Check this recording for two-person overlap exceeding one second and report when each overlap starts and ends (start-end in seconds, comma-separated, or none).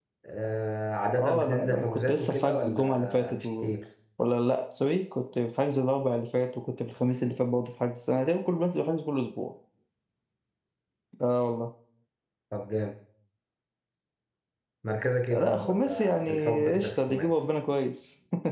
1.2-3.7, 15.3-17.4